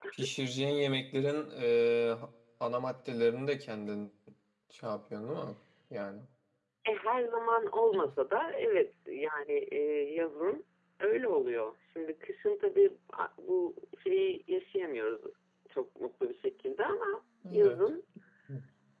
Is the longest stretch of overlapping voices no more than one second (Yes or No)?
Yes